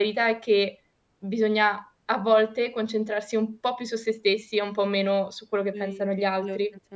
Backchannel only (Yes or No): No